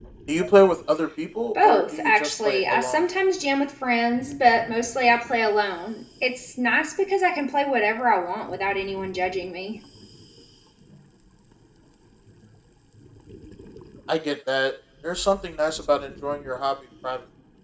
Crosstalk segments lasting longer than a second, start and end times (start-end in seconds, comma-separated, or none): 1.6-3.0